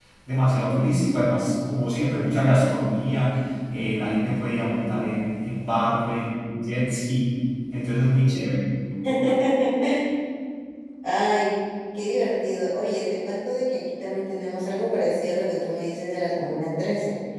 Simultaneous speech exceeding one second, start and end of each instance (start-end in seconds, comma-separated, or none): none